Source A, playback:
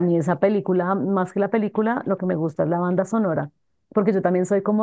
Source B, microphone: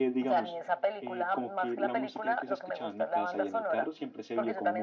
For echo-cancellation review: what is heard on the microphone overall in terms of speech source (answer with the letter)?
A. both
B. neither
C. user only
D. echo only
A